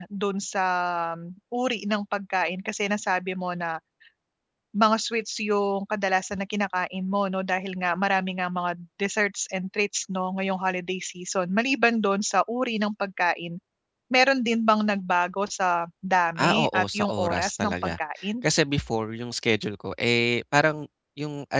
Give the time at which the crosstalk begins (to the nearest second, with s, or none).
16 s